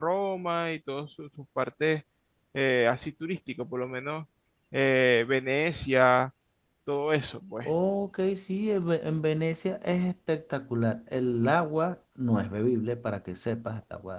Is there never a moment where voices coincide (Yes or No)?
Yes